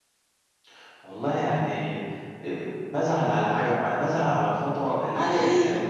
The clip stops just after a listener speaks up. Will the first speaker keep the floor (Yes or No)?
Yes